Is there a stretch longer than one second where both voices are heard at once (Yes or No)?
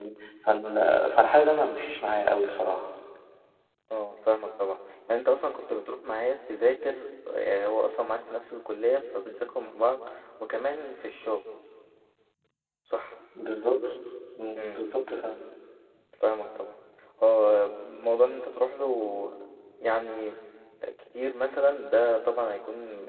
No